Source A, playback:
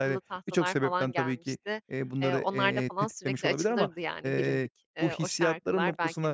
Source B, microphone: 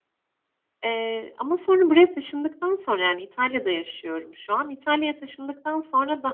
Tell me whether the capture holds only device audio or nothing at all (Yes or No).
No